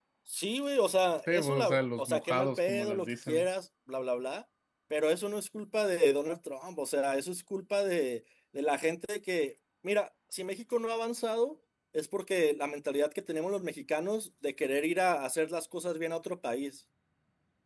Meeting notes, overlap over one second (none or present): present